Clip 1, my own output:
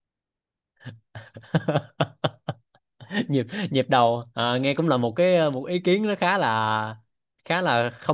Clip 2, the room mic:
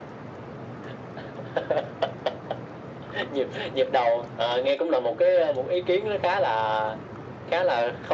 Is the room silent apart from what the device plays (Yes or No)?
Yes